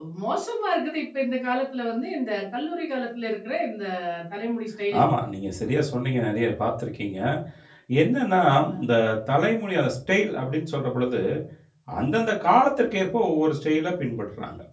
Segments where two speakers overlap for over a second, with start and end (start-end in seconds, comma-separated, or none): none